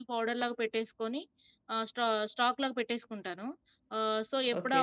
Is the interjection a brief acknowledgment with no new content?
Yes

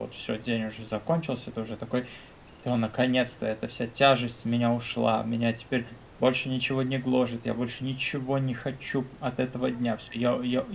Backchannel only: Yes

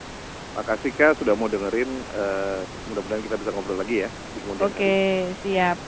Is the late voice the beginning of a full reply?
Yes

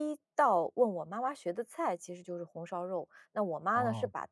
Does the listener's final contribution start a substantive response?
No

